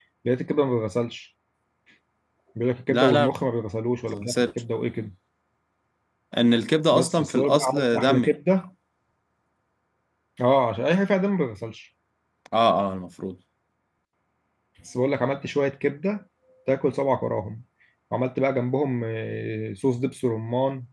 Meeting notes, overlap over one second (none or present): present